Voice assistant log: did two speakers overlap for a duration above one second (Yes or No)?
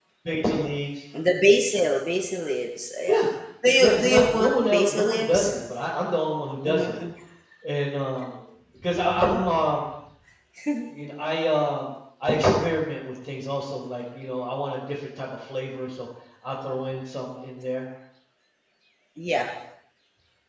Yes